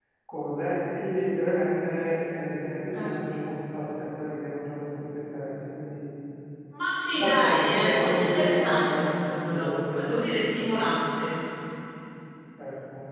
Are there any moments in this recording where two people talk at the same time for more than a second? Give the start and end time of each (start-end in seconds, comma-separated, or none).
7.2-10.4